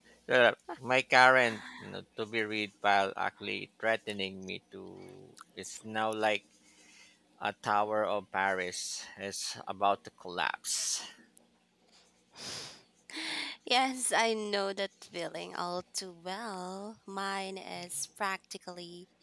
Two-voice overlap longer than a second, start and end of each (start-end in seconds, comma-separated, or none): none